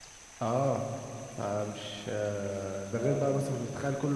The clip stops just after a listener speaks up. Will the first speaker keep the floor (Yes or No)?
Yes